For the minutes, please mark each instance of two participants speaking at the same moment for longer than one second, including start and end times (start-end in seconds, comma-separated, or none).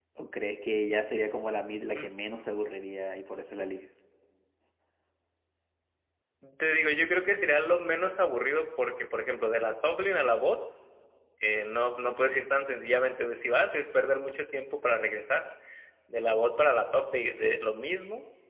none